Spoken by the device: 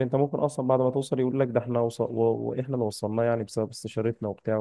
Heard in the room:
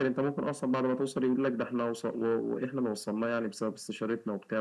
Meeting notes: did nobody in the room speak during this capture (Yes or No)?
Yes